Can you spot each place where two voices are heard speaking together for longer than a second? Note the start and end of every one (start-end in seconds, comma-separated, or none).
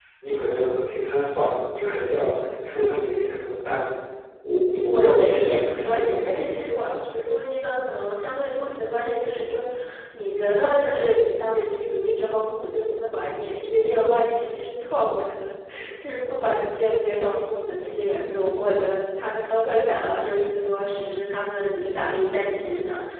4.8-6.5